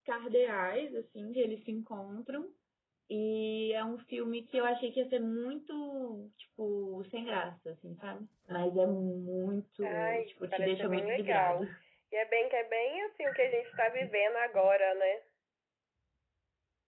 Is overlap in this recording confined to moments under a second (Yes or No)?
No